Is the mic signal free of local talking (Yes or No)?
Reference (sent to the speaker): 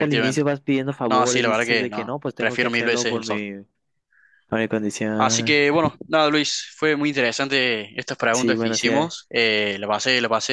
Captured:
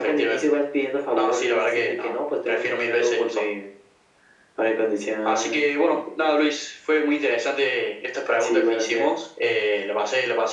Yes